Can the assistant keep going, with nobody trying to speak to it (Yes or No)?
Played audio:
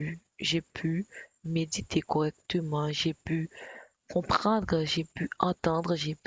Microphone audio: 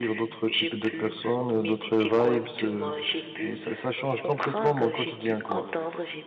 No